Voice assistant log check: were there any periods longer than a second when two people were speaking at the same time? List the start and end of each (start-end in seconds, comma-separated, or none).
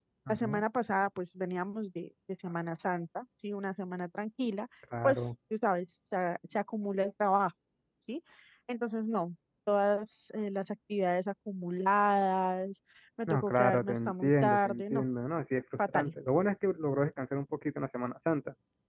13.3-15.0